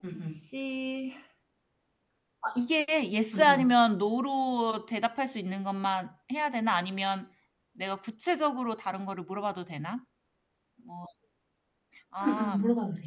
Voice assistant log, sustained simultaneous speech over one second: none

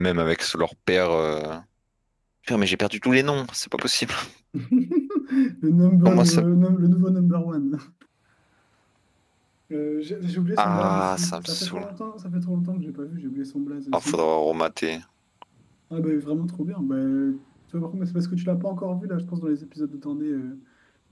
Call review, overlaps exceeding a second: present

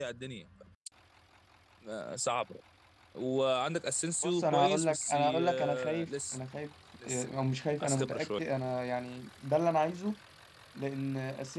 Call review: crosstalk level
present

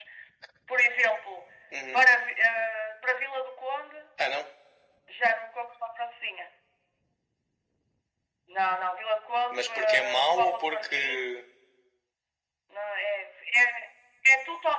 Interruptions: present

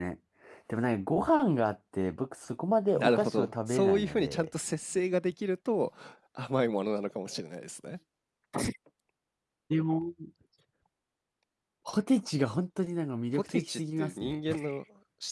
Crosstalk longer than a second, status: present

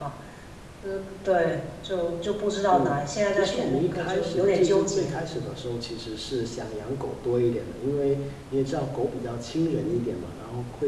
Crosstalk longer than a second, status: present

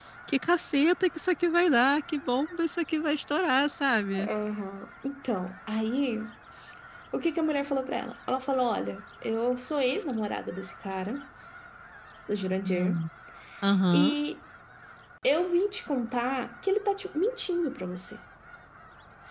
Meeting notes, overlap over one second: none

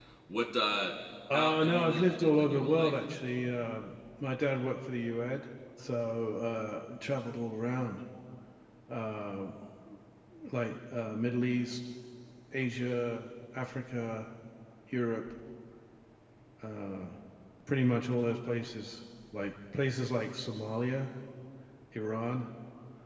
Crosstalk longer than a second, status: present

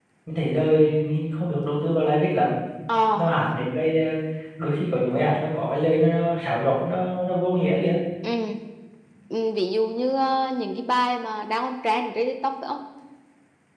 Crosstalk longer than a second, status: none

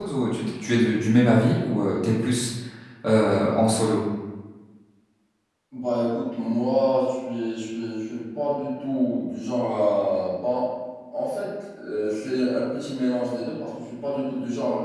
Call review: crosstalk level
none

